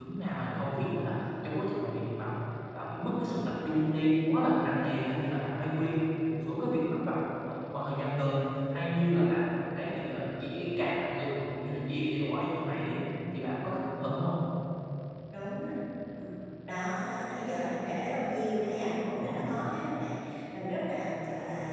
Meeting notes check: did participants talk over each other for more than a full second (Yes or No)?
No